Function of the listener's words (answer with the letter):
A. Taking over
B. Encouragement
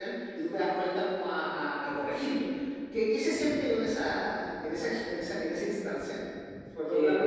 A